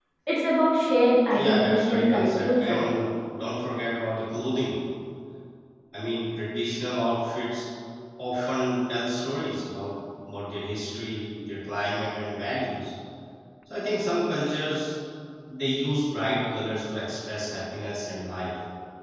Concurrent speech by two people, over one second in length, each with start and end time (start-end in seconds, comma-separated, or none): 1.3-3.0